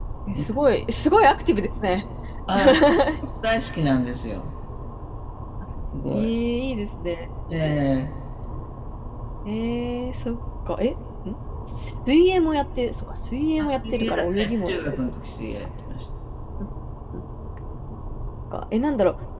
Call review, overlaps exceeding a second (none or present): present